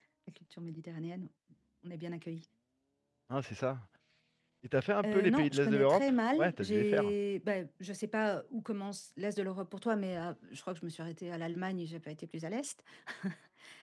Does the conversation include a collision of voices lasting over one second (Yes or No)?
Yes